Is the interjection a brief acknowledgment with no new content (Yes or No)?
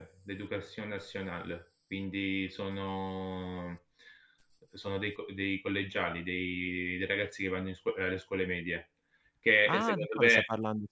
No